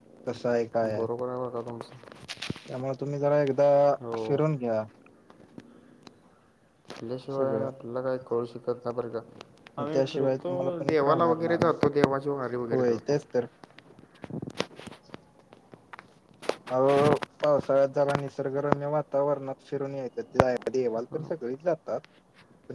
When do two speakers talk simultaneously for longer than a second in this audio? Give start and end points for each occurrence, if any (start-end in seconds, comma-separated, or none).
9.8-11.7